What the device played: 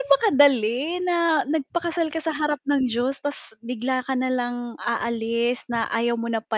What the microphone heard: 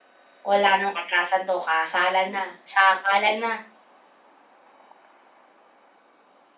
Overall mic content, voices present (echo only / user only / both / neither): user only